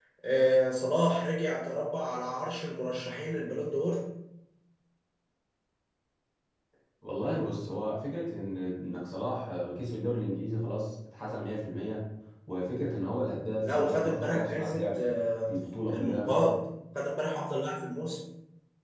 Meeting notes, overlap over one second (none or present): present